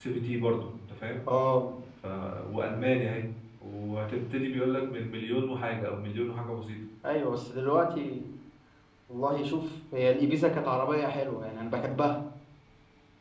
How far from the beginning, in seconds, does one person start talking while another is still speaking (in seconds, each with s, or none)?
none